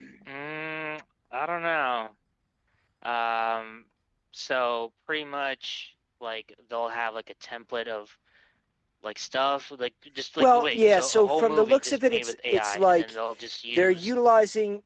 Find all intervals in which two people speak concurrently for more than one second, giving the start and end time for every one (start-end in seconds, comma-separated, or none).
10.4-13.1